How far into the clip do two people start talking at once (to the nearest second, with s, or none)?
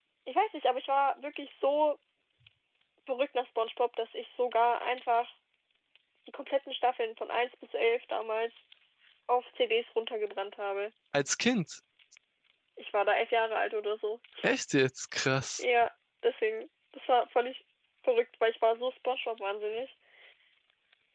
none